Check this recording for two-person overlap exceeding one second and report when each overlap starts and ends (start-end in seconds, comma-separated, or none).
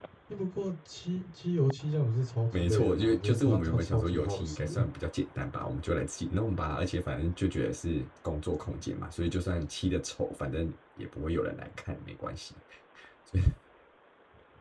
2.5-4.8